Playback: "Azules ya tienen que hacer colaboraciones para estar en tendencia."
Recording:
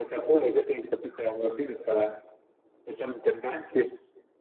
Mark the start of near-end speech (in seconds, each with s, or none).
none